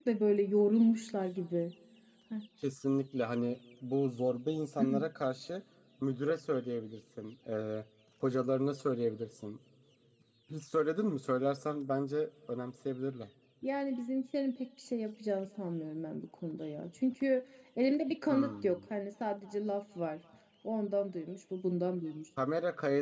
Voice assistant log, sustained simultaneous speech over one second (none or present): none